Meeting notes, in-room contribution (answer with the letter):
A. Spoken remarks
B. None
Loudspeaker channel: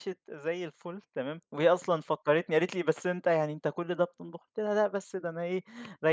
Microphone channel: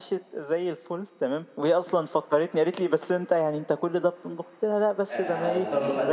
A